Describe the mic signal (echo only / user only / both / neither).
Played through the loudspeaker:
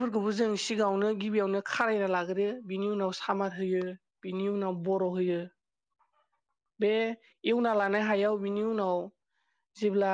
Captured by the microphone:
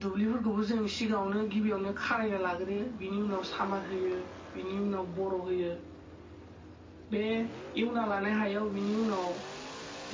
echo only